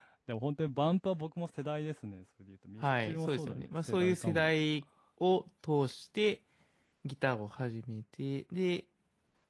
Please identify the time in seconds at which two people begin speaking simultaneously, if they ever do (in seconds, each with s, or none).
2.8 s